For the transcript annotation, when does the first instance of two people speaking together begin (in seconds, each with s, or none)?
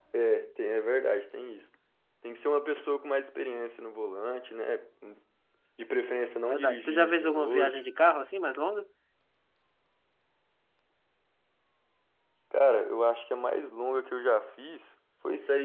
6.4 s